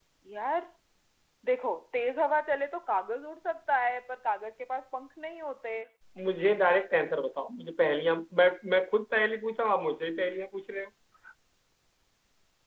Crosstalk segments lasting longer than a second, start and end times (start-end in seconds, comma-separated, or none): none